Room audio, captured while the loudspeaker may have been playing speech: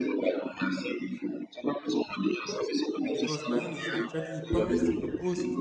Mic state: both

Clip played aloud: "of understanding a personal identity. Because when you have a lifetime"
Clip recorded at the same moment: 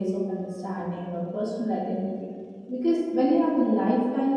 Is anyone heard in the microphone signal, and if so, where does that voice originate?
echo only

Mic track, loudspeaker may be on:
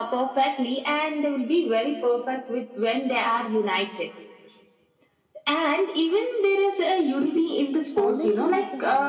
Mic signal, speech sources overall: both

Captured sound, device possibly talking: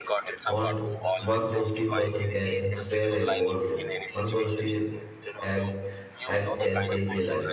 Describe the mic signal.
both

